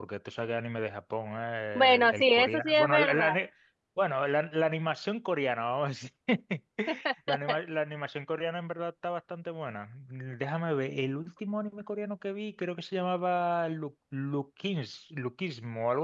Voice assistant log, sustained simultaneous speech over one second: present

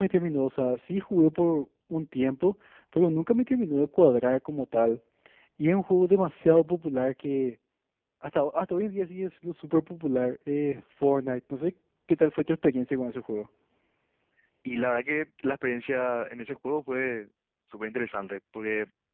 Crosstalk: none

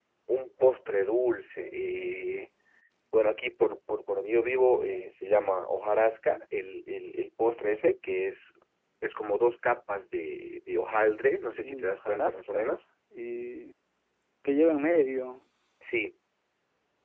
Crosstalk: present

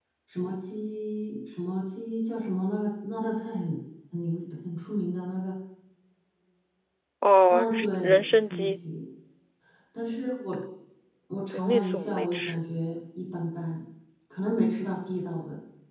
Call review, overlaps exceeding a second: present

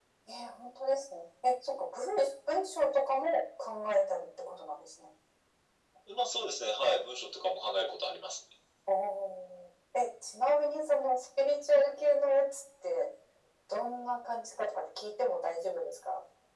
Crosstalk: none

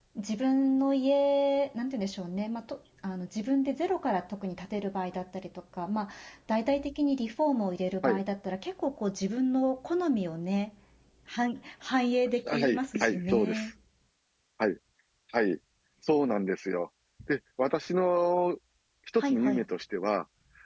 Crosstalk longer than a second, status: present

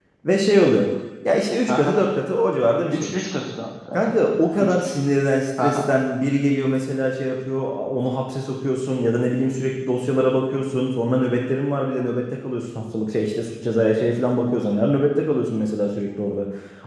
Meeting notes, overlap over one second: none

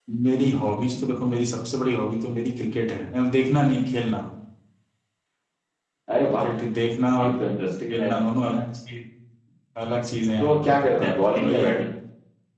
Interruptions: present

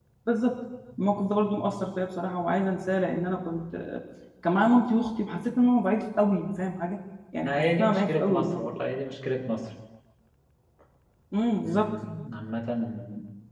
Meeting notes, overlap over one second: present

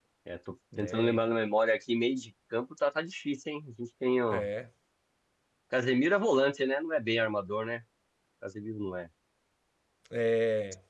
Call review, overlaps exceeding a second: none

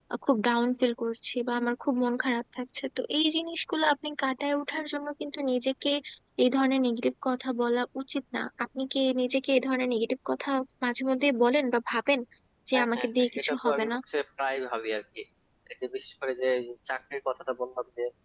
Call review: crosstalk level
present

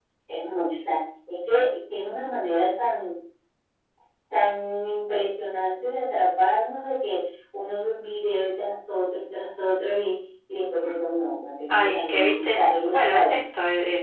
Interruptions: present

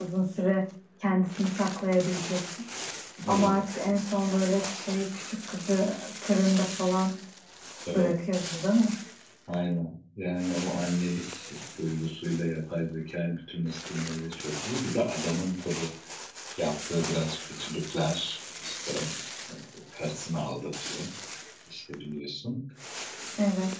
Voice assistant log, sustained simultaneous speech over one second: none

